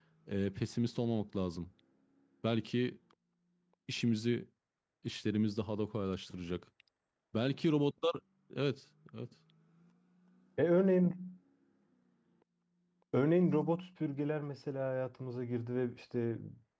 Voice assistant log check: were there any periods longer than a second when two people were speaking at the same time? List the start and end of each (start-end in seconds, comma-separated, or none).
none